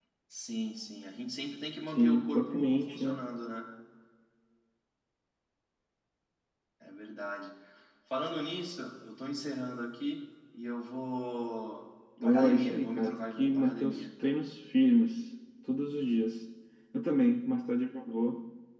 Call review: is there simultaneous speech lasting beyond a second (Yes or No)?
Yes